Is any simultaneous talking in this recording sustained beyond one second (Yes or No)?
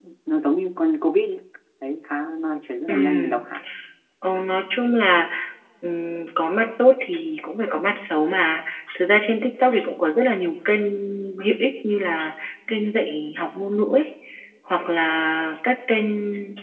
No